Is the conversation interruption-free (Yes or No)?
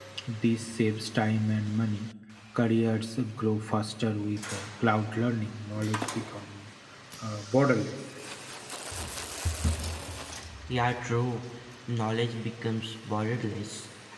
Yes